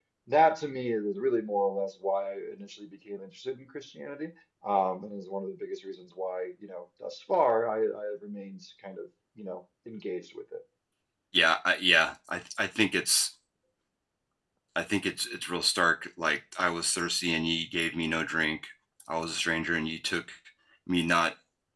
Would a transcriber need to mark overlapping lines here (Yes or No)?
No